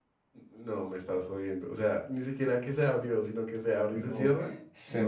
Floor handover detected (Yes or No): Yes